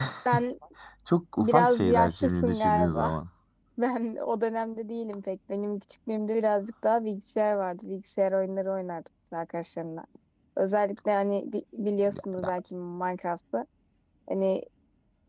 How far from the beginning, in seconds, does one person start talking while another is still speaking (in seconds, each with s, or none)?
1.4 s